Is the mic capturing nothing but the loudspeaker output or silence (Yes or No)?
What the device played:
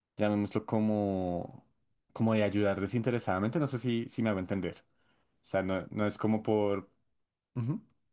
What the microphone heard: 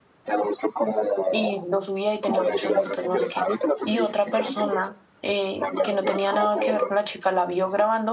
No